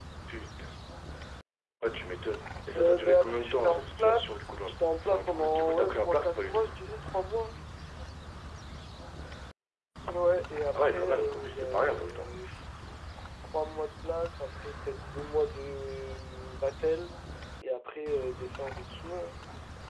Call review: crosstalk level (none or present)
present